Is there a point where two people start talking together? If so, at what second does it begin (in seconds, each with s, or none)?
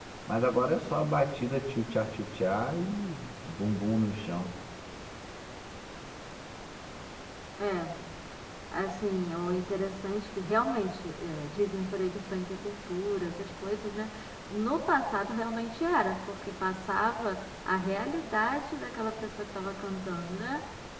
none